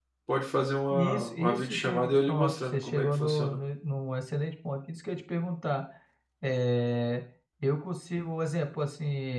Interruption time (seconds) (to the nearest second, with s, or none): 1 s